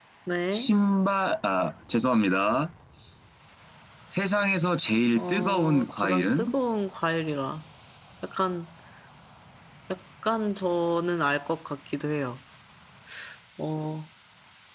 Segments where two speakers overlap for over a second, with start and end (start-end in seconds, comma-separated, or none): 5.2-6.5